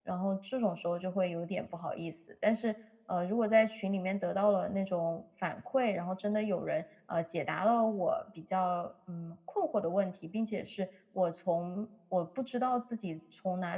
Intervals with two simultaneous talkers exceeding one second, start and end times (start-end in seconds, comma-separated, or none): none